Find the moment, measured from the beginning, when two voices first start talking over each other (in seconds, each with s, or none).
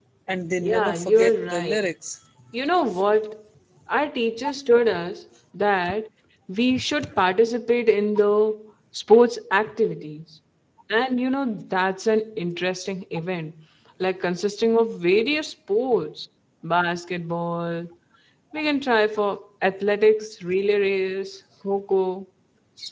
0.6 s